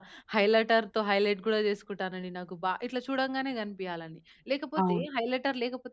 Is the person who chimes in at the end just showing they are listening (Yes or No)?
Yes